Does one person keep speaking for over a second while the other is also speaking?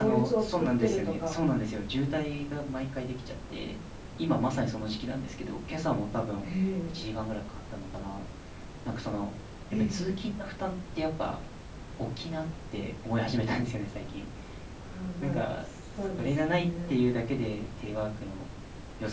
Yes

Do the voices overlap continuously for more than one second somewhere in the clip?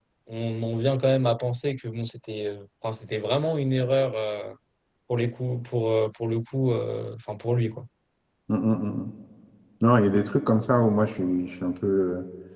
No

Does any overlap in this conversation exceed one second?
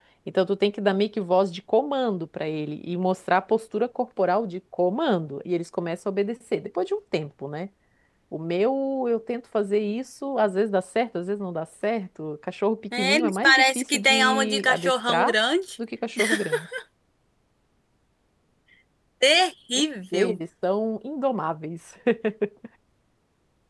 Yes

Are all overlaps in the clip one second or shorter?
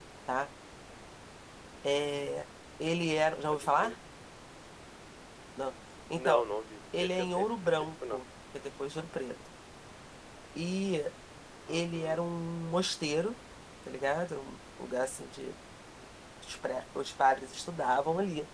No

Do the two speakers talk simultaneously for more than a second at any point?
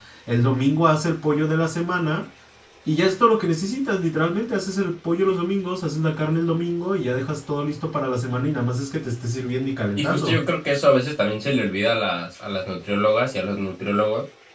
No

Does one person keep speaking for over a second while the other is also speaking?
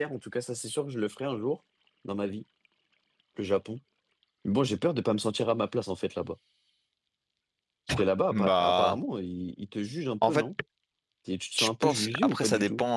Yes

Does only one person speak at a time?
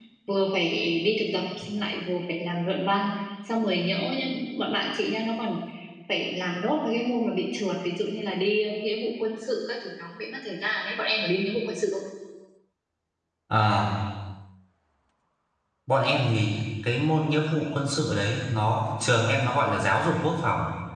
Yes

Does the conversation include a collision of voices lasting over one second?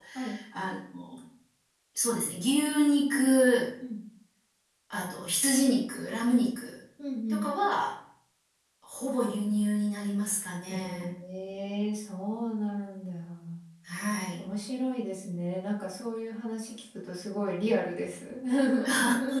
No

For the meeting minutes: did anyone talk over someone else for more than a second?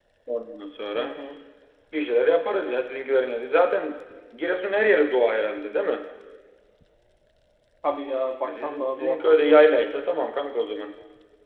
Yes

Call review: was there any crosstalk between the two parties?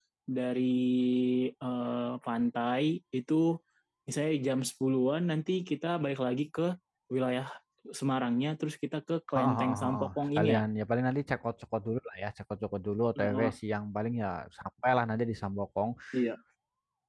Yes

